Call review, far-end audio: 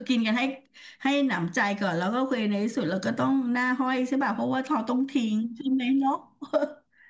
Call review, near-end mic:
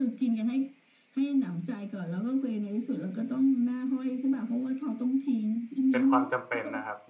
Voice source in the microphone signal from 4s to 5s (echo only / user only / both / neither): echo only